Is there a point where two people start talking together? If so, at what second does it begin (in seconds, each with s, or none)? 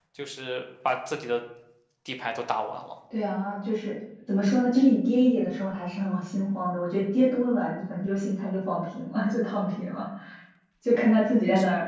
none